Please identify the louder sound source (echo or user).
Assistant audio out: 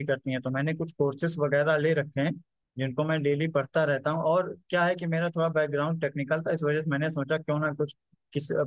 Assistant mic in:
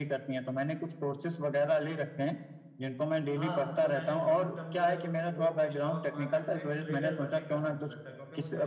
echo